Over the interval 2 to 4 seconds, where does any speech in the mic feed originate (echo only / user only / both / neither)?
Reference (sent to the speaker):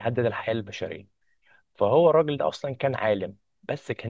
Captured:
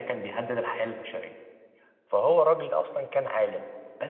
echo only